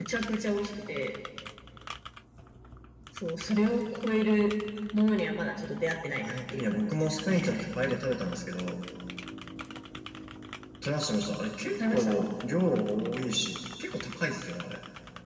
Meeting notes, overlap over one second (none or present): present